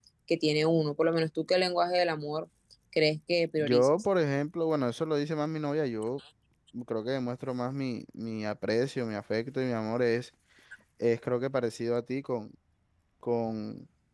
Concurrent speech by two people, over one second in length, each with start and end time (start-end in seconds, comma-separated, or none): none